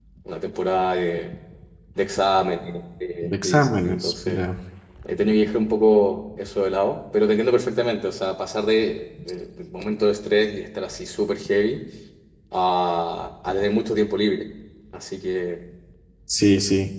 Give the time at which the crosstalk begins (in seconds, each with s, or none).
3.2 s